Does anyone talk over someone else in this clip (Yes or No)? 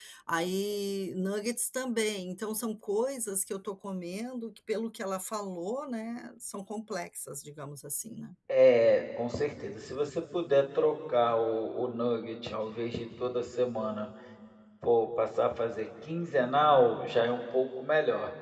No